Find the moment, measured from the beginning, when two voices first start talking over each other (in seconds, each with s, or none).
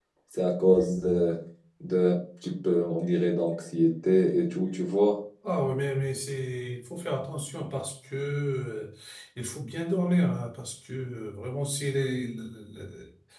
none